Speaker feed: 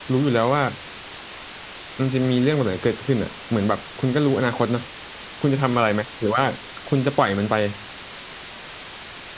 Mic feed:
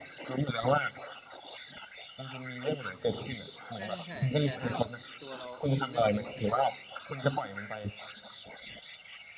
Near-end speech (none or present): present